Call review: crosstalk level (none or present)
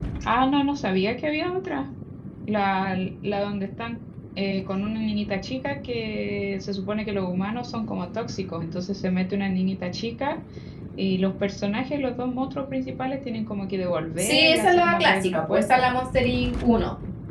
present